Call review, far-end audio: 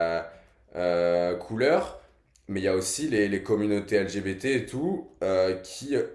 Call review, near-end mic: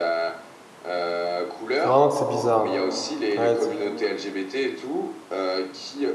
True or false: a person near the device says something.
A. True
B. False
A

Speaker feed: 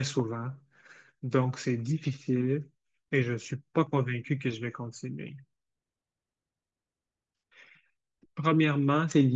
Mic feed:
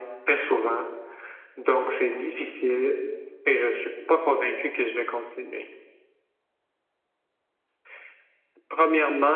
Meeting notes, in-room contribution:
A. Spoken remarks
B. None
B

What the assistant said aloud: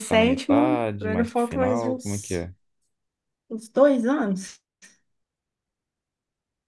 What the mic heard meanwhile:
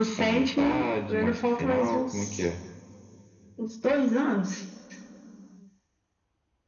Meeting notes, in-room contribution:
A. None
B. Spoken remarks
A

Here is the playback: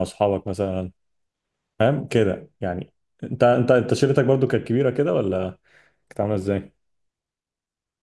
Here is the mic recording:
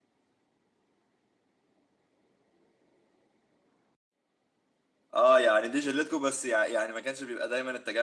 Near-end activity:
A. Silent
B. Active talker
B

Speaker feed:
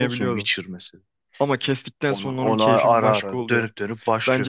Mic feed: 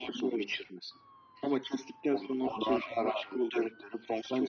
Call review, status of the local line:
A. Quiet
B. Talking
A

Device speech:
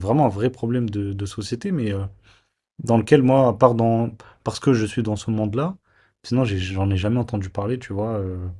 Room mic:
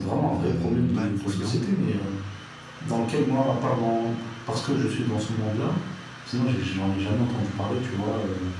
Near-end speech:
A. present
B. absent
A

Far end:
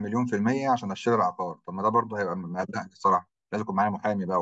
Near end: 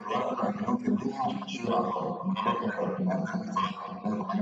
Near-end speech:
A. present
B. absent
B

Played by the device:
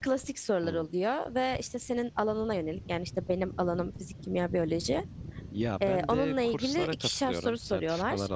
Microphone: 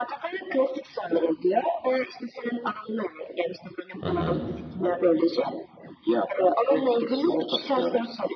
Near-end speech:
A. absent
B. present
B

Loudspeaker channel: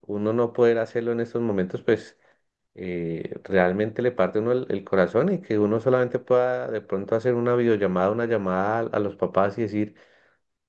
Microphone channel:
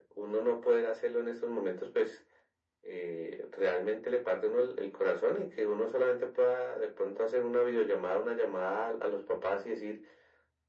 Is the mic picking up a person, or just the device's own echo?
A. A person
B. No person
B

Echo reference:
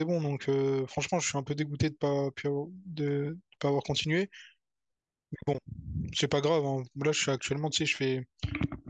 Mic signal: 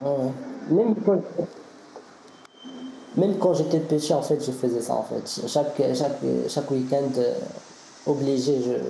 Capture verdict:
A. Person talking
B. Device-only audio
A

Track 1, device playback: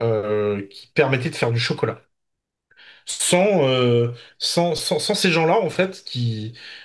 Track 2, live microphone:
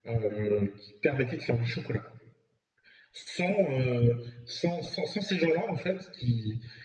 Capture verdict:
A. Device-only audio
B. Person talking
A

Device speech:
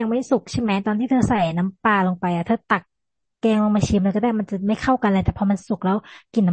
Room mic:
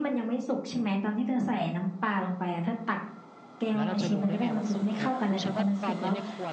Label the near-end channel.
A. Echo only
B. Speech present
B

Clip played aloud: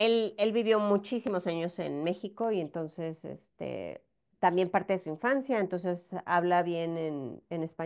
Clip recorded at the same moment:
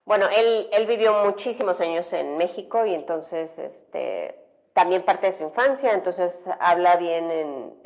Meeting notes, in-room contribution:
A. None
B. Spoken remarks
A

